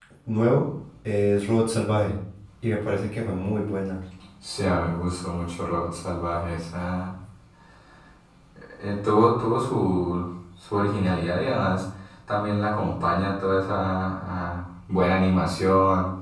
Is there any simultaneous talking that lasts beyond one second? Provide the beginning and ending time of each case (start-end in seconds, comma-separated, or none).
none